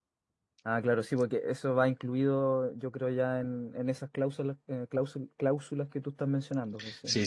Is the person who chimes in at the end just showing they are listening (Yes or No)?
No